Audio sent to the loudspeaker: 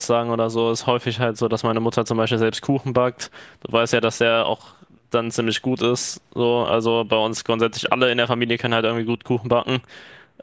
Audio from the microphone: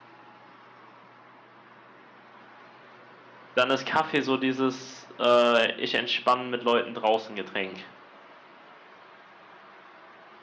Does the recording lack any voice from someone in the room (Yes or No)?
No